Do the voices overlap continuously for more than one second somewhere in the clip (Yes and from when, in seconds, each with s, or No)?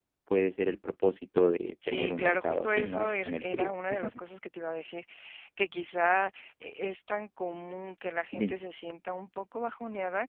Yes, from 1.8 s